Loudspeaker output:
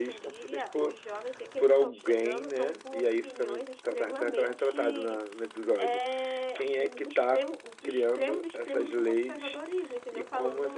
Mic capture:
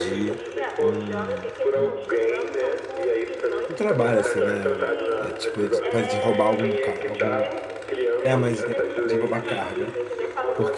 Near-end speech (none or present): present